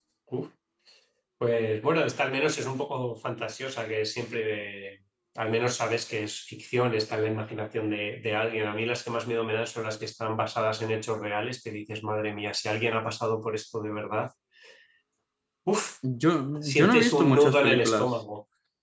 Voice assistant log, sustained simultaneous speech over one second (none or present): present